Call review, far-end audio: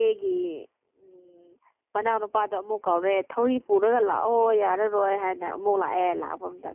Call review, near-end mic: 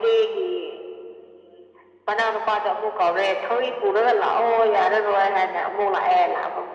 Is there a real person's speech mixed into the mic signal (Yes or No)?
No